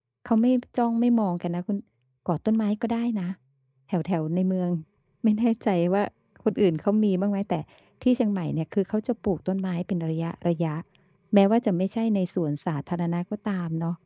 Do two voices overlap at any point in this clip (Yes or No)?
No